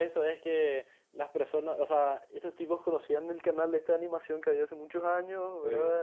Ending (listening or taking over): listening